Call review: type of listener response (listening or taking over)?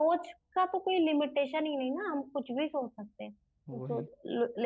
listening